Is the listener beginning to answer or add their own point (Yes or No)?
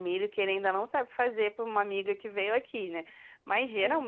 No